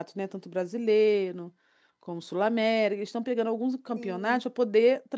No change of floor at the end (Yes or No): Yes